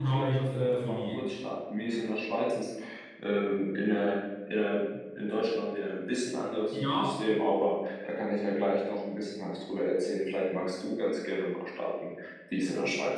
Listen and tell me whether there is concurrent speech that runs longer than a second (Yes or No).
Yes